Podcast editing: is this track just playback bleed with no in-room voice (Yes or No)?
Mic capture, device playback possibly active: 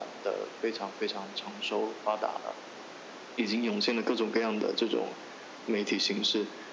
Yes